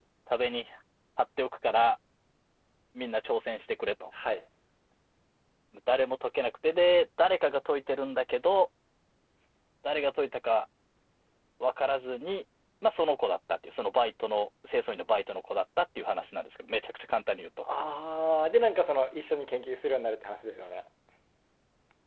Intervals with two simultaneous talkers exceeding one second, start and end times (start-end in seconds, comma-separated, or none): none